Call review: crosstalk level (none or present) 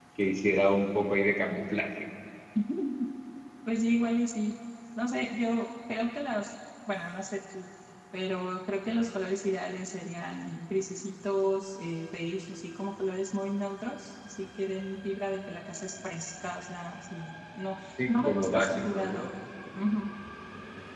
present